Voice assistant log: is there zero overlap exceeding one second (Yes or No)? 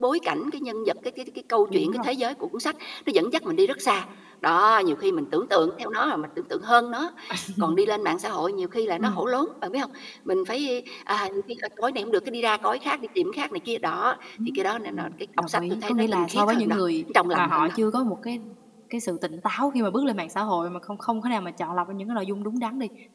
No